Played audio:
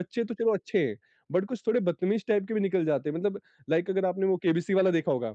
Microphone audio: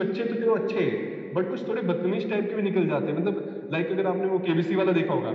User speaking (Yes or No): No